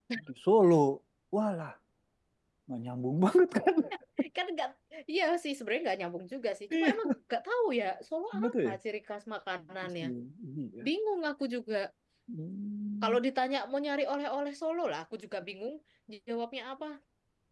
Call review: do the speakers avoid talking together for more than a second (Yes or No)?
Yes